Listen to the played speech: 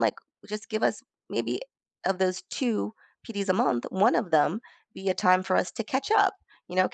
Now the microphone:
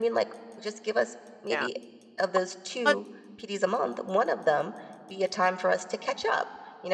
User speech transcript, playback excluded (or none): yeah. Well, but